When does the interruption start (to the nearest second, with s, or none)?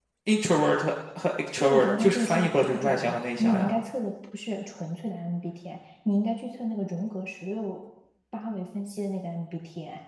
2 s